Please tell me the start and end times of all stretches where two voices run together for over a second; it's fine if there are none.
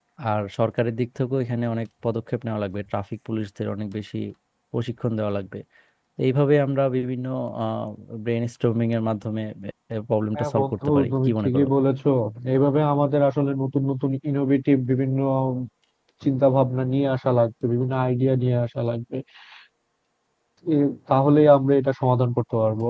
10.3-11.7

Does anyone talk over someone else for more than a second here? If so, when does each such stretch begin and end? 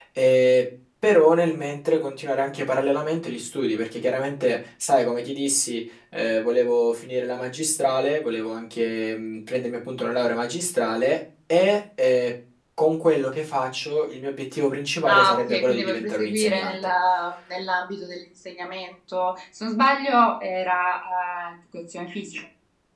15.1-16.8

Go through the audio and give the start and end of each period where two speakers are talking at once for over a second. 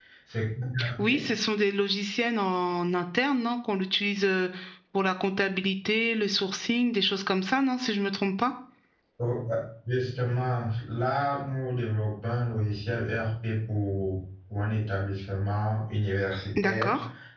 none

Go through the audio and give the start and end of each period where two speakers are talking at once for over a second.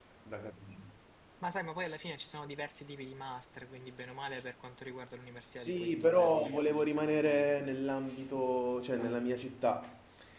5.5-7.6

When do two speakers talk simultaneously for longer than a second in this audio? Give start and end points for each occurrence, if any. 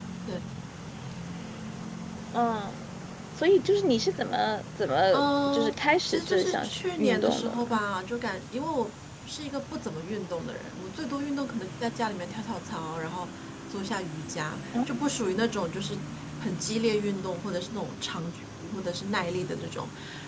5.1-7.8

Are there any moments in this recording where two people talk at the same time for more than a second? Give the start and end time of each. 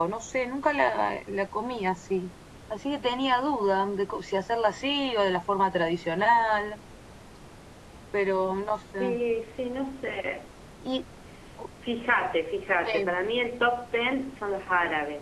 none

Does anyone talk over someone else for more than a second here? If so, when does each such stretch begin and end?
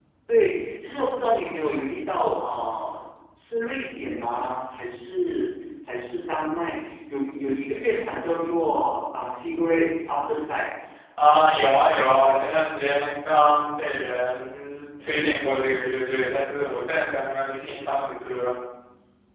none

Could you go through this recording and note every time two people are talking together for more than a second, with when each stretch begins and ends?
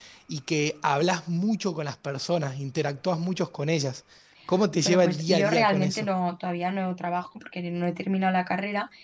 4.8-6.1

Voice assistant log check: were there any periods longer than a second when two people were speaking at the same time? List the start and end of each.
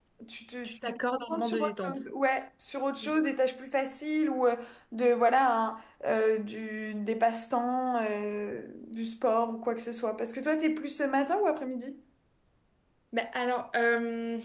0.6-2.0

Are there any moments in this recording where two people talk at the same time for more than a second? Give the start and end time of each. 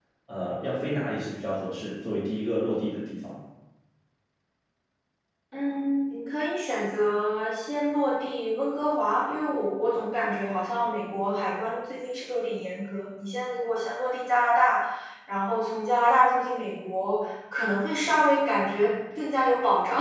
none

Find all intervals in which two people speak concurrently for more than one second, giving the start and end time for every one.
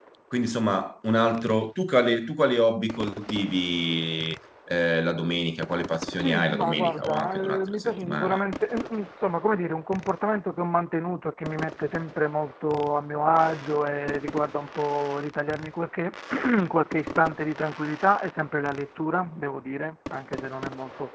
6.2-8.4

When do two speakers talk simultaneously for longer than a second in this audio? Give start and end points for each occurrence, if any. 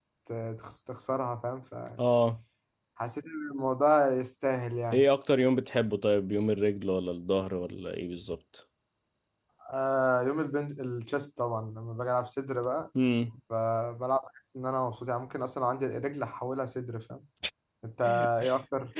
none

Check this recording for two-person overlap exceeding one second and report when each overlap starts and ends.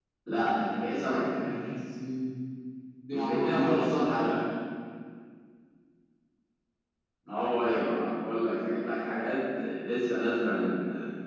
3.1-4.3

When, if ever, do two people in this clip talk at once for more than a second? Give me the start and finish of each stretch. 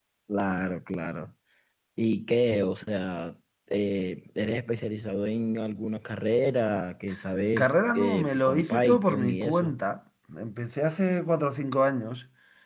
7.6-9.7

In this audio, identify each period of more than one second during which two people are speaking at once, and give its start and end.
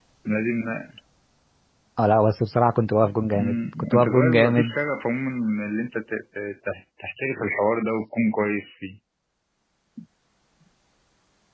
3.3-4.8

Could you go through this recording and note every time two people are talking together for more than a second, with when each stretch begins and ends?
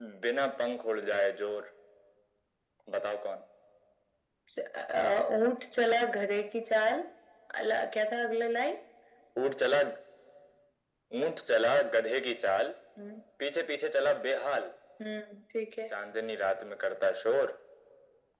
none

